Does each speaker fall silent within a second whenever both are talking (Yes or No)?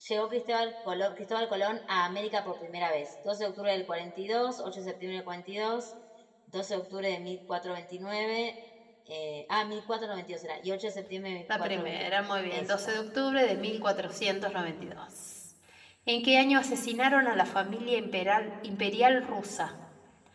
No